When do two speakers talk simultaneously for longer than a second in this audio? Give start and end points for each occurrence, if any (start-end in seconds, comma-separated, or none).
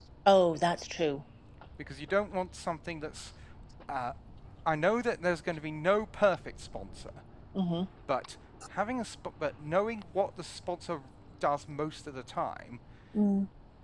none